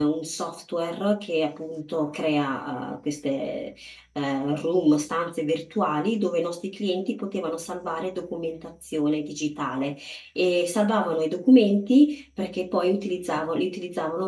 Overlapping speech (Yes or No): No